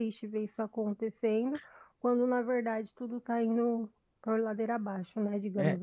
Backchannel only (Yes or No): No